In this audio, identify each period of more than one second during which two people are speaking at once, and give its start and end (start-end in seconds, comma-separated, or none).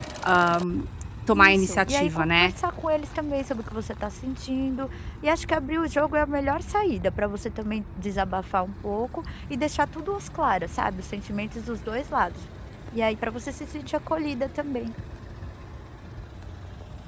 1.3-2.5